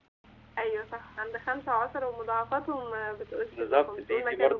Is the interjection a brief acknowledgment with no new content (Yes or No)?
No